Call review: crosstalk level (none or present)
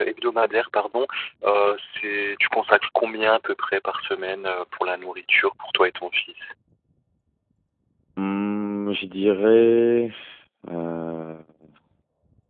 none